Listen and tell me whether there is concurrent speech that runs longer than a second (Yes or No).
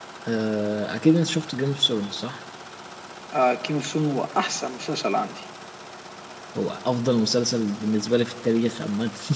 No